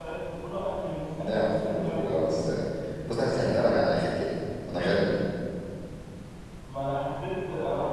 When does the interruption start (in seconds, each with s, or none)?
1.2 s